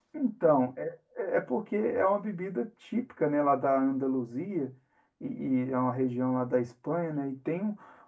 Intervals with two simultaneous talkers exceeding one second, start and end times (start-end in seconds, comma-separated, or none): none